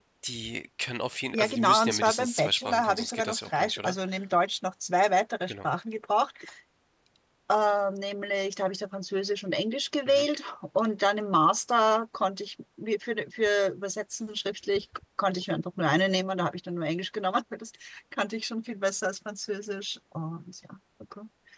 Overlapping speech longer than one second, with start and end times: 1.3-3.9

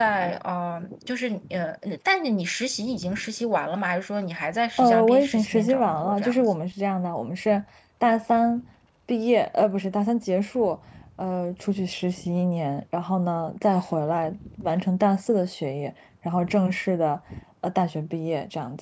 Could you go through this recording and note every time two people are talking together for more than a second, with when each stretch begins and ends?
4.8-6.5

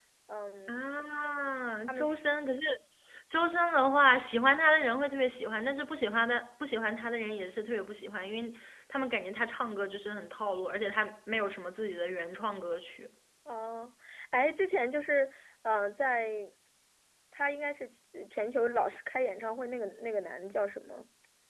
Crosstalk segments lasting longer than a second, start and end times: none

